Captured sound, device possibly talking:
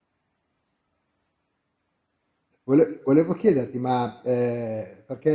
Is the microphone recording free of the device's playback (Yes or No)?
Yes